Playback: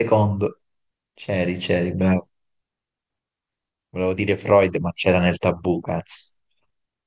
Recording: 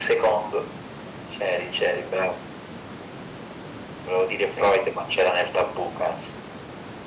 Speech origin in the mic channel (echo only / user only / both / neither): echo only